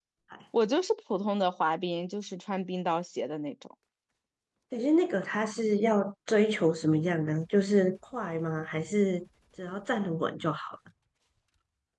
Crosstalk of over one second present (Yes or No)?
No